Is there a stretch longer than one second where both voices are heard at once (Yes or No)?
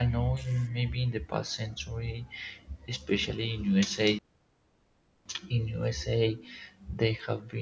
No